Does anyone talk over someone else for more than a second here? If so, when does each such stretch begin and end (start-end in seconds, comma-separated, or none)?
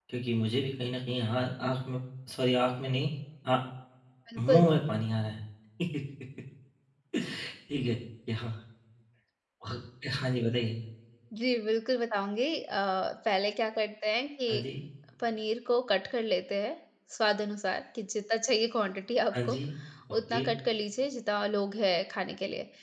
none